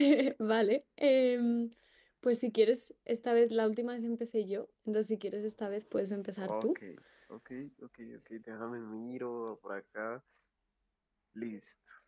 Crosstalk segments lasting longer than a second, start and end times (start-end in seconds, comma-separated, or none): none